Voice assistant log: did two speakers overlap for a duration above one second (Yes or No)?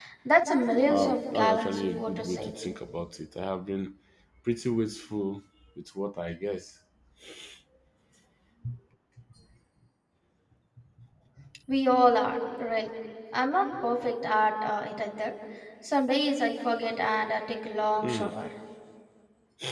Yes